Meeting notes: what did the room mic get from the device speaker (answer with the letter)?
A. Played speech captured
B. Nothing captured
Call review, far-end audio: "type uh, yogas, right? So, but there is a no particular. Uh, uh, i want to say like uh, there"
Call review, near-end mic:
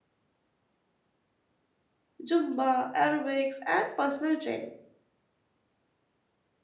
B